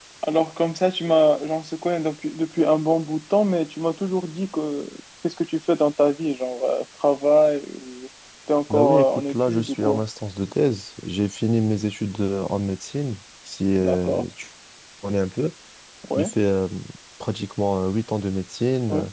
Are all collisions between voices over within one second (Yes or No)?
No